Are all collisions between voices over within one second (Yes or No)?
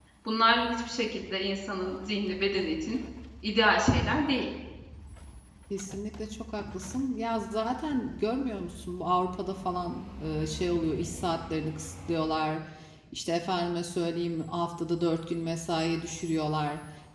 Yes